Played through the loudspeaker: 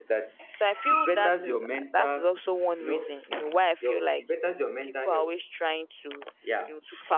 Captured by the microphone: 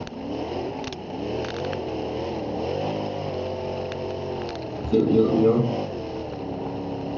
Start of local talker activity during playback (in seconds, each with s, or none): 4.9 s